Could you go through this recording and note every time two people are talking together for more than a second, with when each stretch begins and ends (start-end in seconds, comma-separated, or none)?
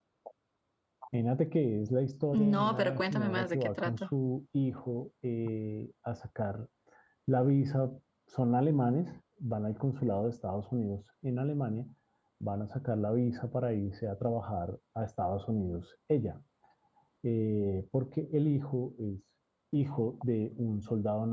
2.3-3.9